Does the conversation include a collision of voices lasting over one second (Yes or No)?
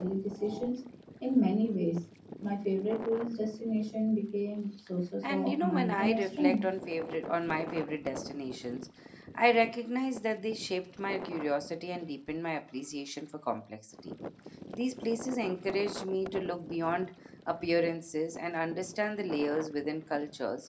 Yes